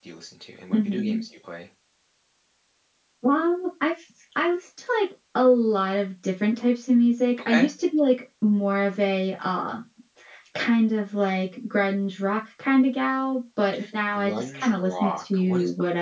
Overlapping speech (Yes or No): Yes